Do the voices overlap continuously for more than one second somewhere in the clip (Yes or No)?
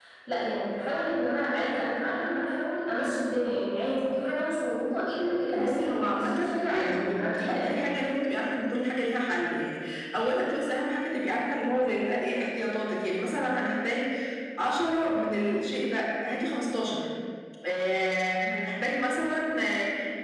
Yes